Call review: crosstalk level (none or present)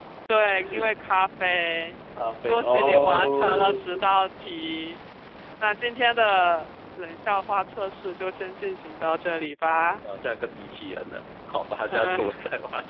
present